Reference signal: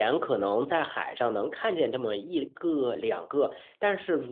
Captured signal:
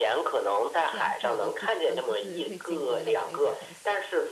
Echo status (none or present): present